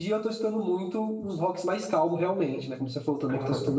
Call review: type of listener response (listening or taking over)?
taking over